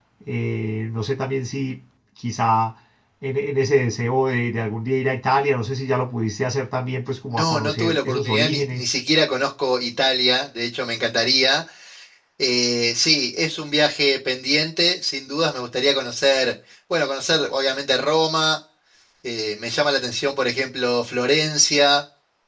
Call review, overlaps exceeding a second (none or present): present